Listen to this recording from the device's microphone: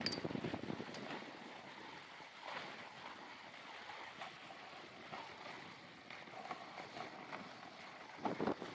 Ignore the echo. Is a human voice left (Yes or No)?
No